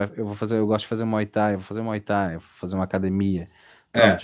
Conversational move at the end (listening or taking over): listening